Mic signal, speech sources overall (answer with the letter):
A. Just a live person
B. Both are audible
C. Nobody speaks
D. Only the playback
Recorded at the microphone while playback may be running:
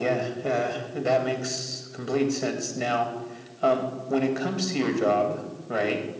D